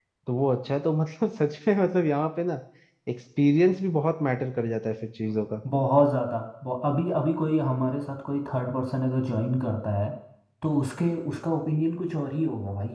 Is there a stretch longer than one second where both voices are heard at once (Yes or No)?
No